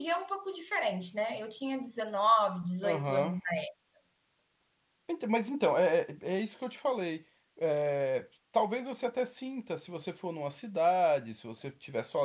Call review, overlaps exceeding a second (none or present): none